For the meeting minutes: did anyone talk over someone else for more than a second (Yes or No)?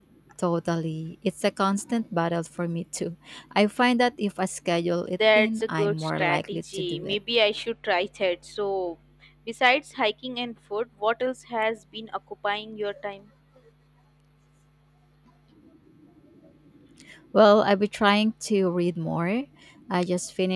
Yes